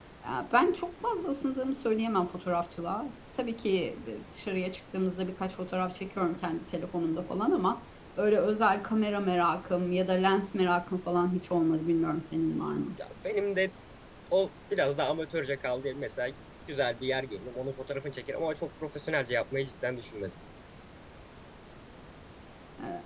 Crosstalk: none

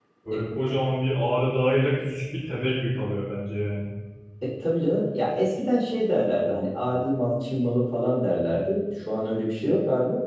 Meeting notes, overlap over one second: none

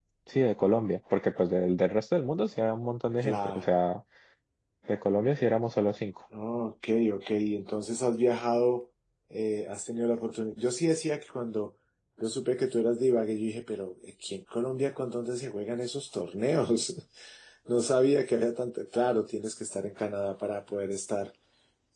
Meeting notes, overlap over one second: none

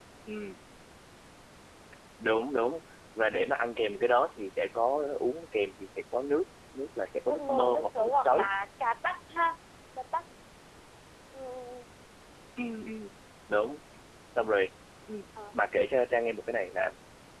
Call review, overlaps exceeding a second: present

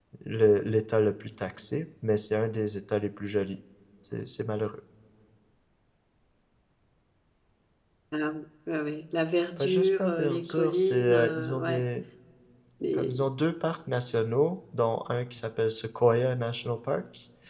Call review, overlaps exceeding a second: present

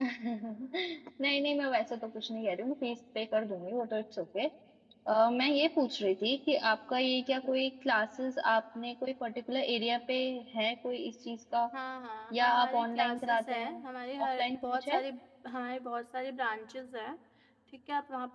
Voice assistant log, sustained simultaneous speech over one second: present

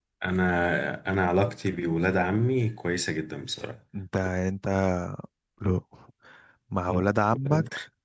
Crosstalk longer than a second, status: none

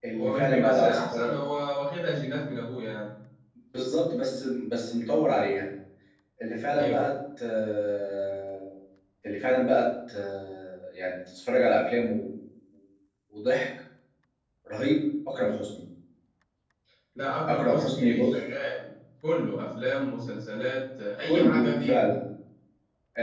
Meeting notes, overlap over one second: present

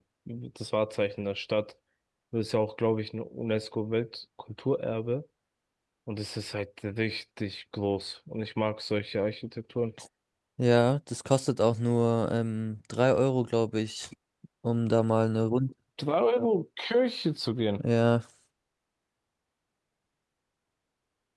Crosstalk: none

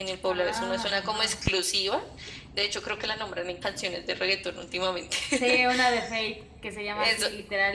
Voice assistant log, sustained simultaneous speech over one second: present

